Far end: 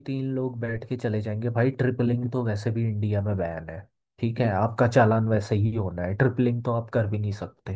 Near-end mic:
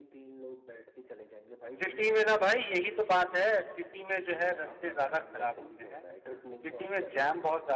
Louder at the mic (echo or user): user